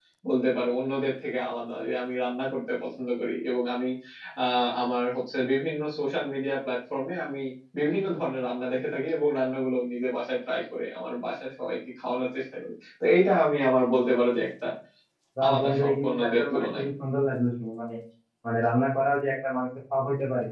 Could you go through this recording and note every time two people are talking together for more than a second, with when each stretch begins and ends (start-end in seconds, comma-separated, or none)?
15.4-16.8